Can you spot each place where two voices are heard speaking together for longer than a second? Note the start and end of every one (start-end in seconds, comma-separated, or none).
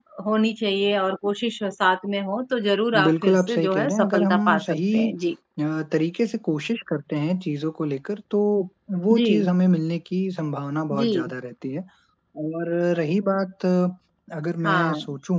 3.0-5.1